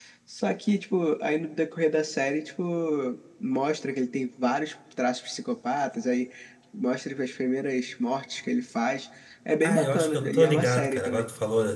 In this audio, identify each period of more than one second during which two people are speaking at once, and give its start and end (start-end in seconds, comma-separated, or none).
9.6-11.3